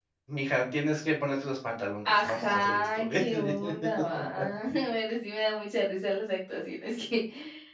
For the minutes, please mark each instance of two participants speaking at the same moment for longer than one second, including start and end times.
2.0-3.5

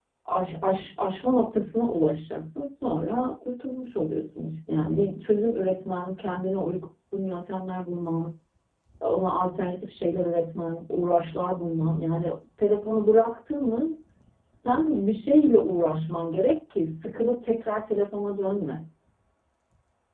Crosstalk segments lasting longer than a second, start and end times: none

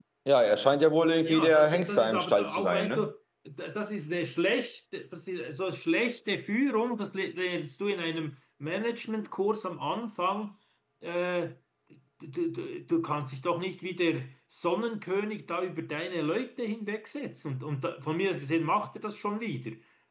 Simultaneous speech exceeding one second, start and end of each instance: 1.2-3.1

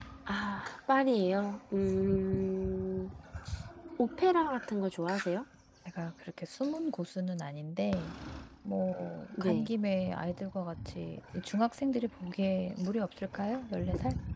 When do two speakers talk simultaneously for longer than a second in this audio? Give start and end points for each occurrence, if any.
none

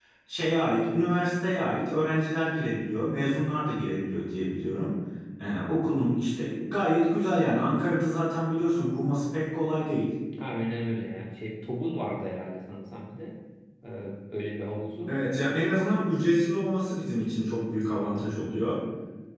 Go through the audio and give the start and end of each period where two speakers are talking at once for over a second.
none

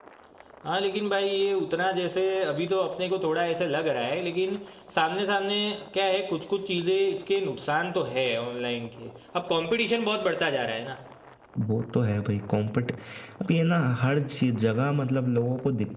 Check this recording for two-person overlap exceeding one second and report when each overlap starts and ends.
none

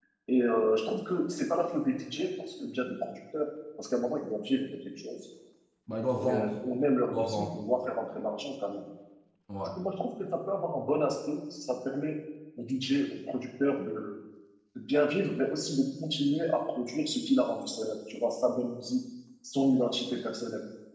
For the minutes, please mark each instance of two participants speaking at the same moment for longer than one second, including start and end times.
none

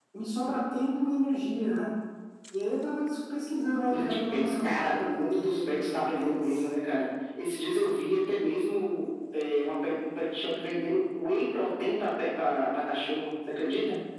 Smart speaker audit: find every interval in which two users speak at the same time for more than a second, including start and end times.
3.9-6.6

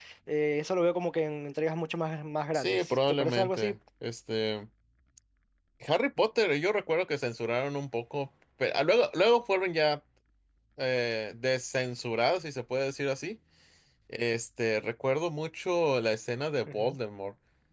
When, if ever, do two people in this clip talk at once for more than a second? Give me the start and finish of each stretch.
2.5-3.8

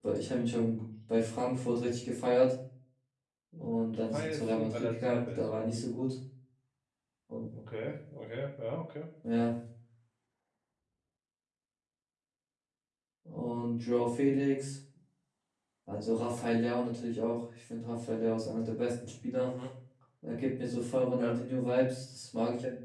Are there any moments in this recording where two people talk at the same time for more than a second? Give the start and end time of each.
3.6-5.8

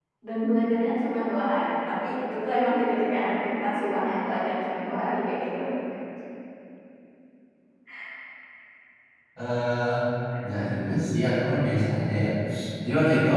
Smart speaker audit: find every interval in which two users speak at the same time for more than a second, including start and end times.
none

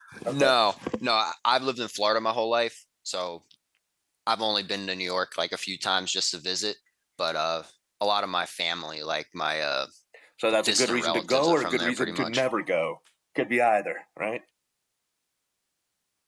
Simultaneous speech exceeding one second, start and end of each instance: 10.7-12.4

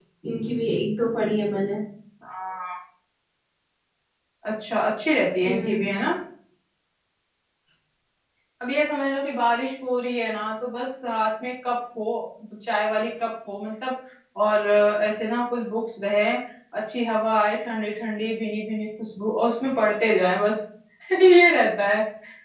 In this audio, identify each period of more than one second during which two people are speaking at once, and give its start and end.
none

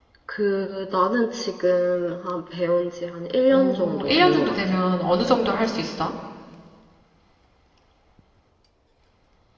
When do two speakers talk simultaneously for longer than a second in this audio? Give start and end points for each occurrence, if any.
3.5-4.8

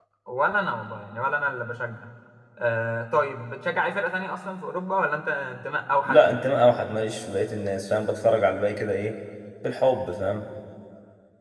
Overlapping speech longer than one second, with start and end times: none

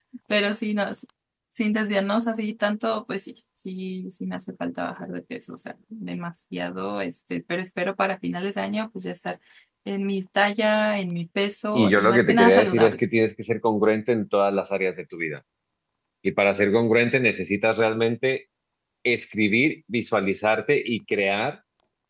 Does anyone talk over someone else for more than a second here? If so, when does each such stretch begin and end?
11.7-13.0

